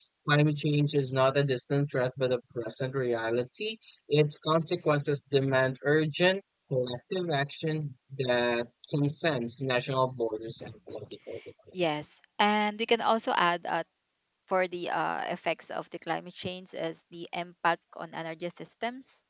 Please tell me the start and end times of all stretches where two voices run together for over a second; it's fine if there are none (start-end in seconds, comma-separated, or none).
none